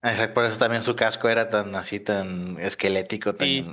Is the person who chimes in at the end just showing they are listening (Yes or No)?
No